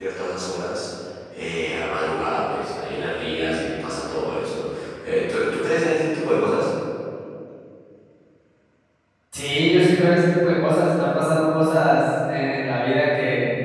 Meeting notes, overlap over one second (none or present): none